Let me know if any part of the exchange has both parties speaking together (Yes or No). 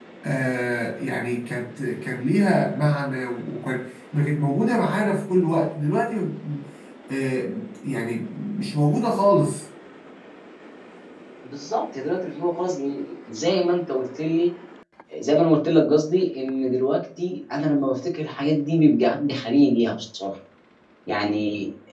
No